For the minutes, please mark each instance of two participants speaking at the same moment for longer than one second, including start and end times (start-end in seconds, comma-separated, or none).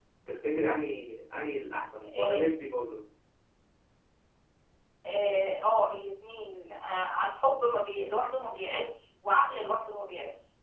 none